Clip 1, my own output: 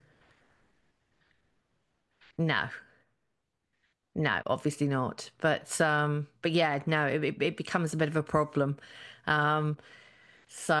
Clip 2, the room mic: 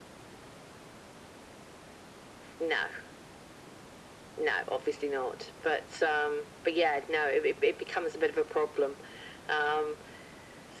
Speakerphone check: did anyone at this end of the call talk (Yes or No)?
No